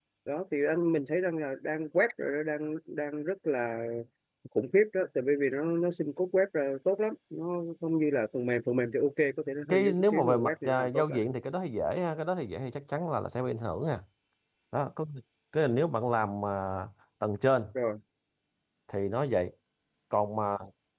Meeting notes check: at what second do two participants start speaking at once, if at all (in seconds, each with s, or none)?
9.7 s